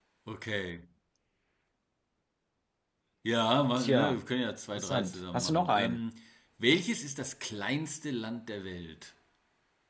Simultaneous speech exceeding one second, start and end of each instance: 4.7-6.0

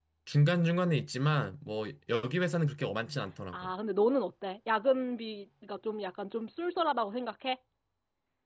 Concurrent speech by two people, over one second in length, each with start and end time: none

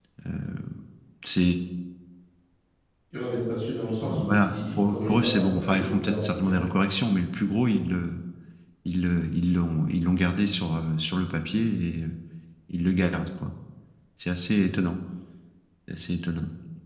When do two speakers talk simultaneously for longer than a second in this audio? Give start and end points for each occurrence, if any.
4.1-6.6

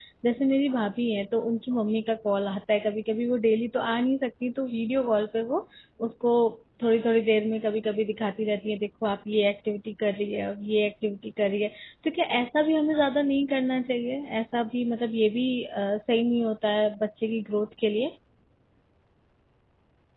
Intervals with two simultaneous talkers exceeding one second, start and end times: none

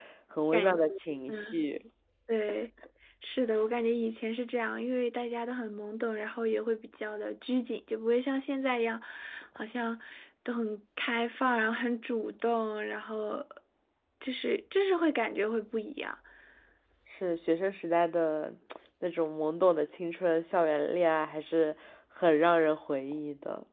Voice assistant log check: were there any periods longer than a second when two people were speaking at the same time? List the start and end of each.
none

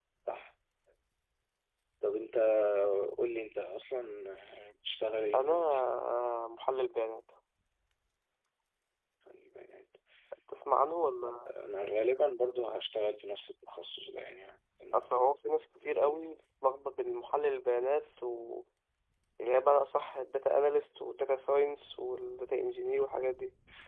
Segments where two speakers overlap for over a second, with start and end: none

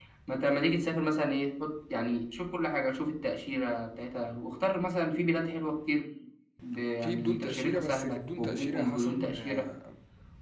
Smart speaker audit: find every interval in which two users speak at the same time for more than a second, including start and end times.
7.0-9.7

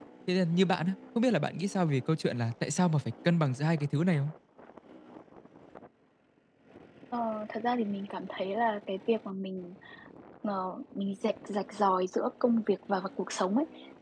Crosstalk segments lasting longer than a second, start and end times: none

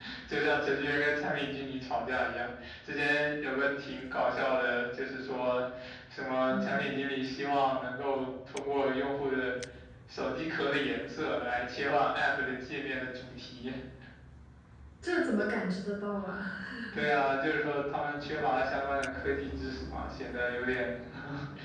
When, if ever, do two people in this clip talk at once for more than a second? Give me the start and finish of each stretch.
none

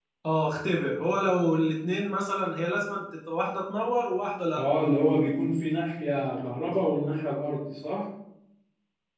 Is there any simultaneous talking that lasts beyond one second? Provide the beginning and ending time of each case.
none

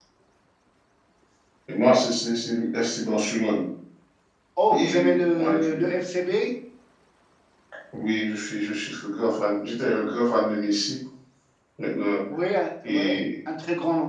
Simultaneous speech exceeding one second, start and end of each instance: 4.7-5.9

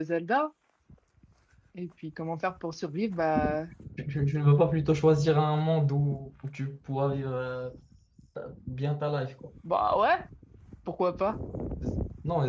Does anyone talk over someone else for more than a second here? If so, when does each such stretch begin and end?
none

